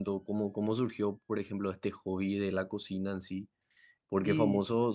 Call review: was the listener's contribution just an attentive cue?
Yes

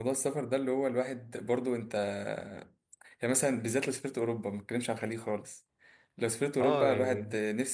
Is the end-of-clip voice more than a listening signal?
No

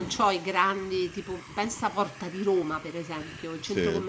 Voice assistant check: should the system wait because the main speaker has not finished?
Yes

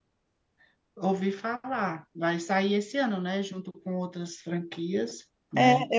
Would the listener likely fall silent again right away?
No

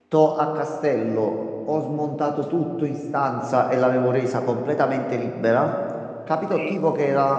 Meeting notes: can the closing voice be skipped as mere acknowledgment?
Yes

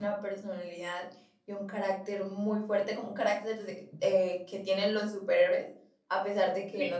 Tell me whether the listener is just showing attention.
Yes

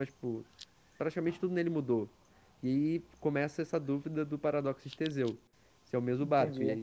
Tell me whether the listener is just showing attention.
No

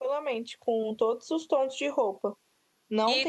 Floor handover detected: Yes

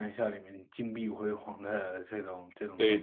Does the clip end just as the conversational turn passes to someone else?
Yes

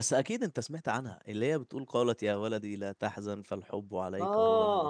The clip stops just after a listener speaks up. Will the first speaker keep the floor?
No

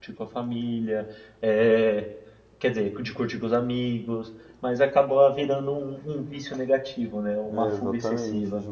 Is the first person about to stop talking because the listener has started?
Yes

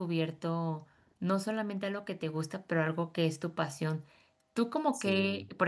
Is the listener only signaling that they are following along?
Yes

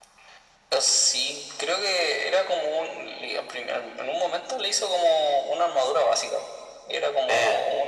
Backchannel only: Yes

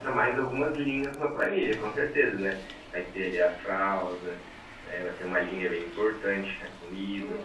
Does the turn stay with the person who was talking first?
No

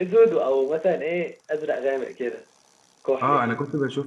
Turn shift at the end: Yes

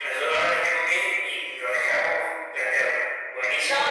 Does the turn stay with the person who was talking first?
No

